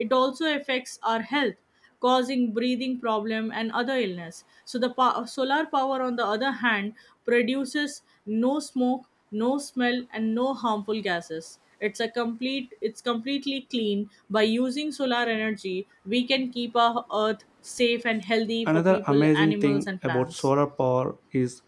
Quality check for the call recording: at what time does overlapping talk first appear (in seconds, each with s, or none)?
18.7 s